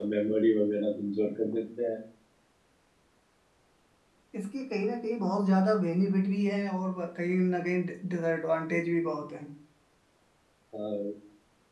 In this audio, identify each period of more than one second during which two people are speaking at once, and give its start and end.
none

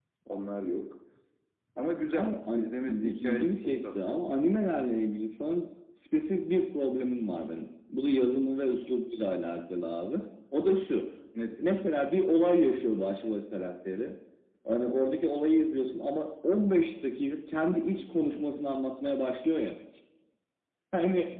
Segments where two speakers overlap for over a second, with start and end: 2.1-4.2

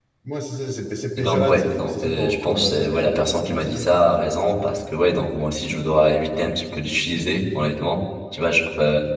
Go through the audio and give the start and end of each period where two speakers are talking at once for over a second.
1.2-3.8

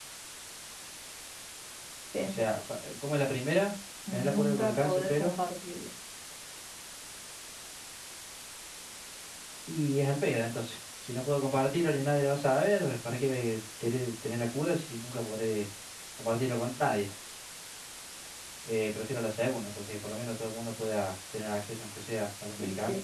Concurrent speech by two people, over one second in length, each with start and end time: 4.1-5.3

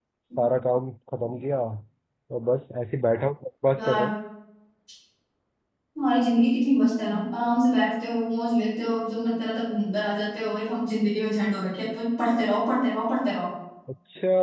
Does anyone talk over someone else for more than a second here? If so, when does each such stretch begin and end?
none

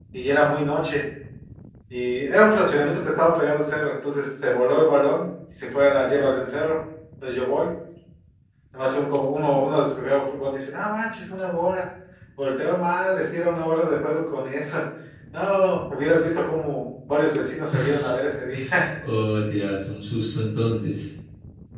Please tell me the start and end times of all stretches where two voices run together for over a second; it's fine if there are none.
none

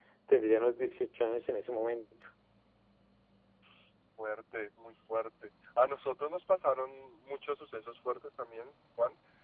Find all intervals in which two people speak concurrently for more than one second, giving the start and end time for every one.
none

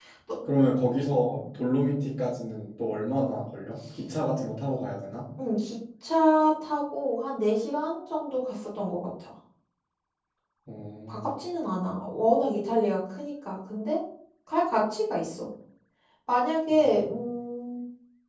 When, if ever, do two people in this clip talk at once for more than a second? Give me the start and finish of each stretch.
none

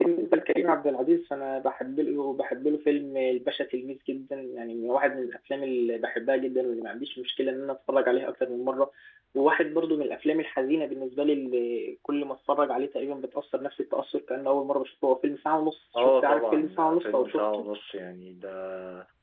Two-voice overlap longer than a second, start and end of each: 16.0-17.7

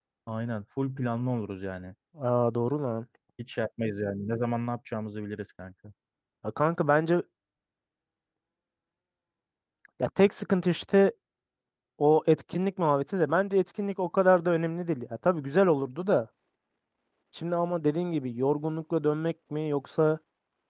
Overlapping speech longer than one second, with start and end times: none

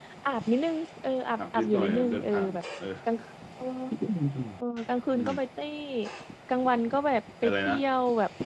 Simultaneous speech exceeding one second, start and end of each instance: 1.4-2.6

